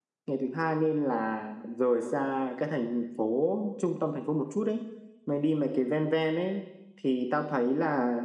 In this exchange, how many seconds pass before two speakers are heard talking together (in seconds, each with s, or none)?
none